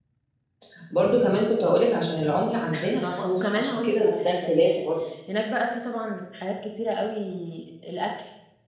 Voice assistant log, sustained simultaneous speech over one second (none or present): present